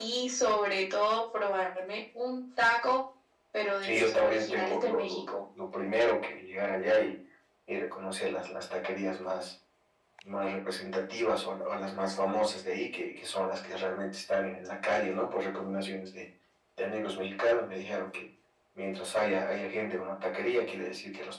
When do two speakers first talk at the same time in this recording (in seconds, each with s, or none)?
3.8 s